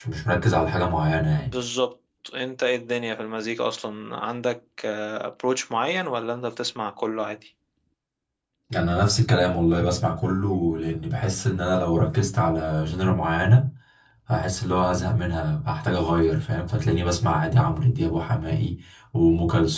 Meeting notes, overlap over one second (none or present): none